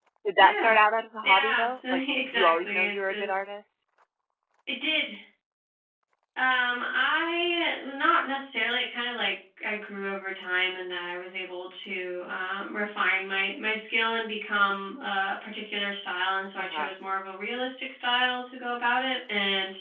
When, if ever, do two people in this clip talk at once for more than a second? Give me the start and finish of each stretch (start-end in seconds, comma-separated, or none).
1.2-3.2